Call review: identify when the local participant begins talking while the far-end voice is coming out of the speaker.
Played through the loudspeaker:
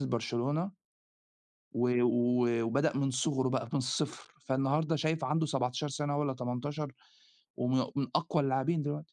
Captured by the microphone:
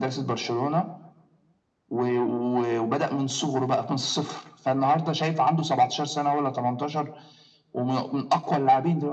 none

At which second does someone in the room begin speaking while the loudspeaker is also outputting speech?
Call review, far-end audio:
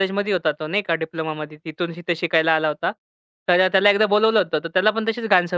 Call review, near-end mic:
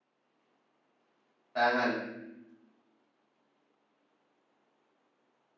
2 s

